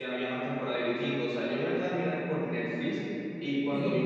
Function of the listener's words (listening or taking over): listening